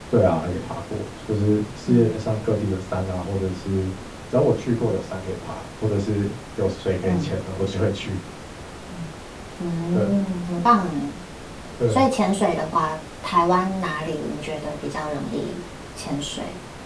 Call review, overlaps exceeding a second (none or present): none